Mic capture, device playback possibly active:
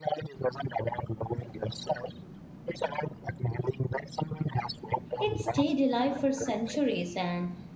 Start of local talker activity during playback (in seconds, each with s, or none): 5.2 s